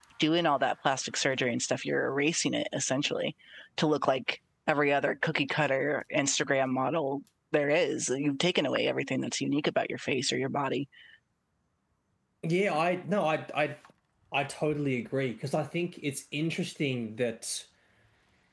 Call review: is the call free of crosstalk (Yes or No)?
Yes